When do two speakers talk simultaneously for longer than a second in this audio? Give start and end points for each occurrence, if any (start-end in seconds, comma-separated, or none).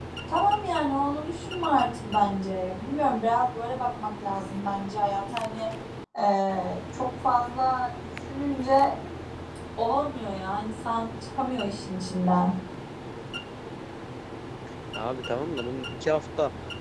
none